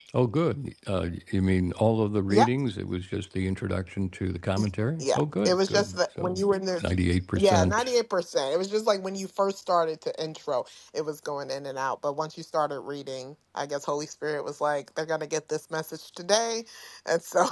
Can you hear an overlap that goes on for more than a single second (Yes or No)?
Yes